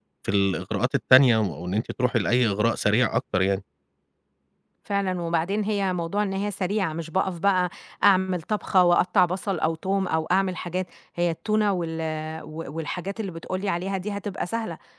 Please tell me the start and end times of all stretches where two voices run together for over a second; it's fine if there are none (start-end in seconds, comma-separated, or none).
none